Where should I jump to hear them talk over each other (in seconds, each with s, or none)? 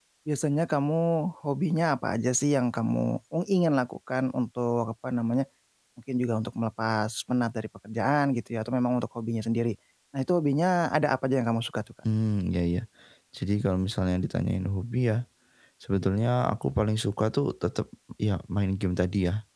none